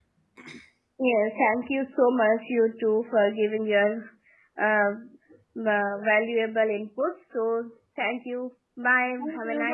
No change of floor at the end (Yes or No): No